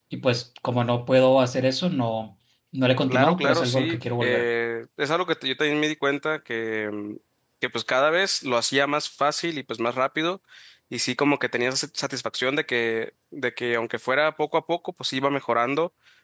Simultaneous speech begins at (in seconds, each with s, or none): 3.1 s